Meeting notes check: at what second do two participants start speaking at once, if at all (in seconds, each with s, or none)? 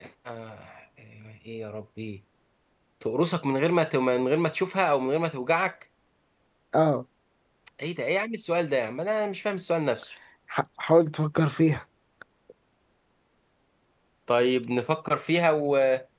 none